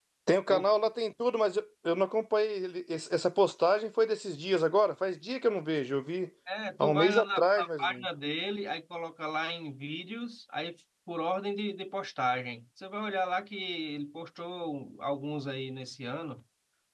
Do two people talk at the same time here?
Yes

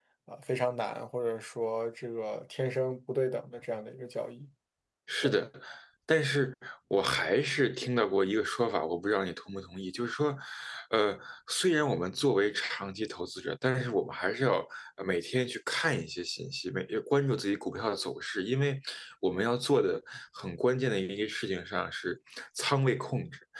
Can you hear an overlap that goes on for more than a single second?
No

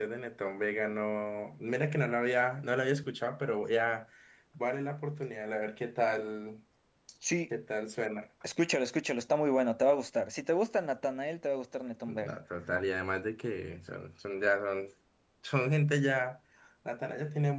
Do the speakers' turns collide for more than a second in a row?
No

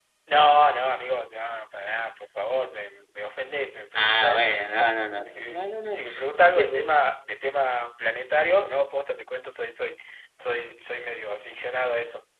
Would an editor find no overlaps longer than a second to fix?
No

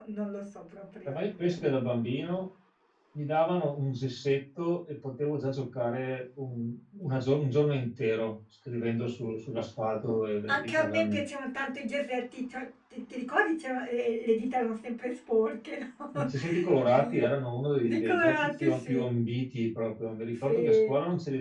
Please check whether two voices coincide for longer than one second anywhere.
Yes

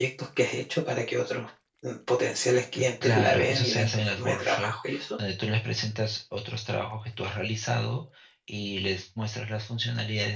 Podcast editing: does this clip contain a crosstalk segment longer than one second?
Yes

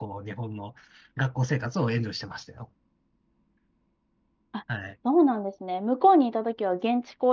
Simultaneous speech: No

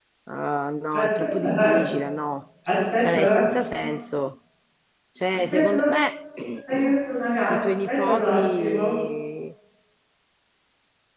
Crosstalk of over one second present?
Yes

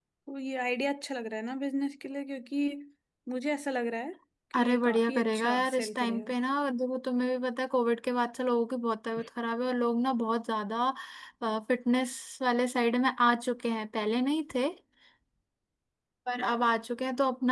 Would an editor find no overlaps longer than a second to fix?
No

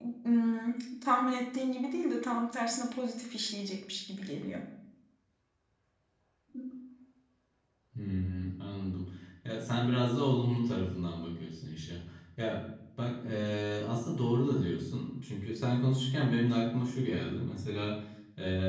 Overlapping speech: No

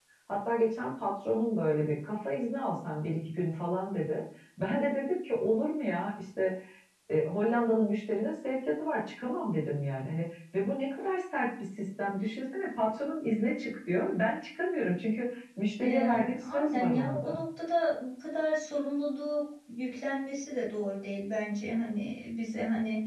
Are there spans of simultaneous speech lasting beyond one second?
Yes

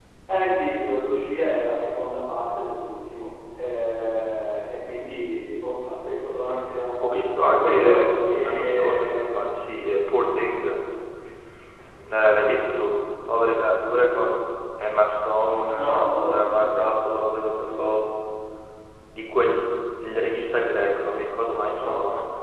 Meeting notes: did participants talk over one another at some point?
Yes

